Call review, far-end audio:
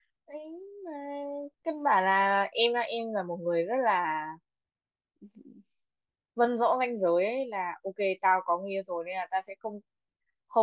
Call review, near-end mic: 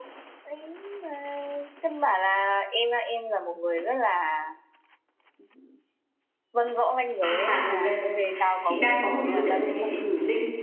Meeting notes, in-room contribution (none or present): present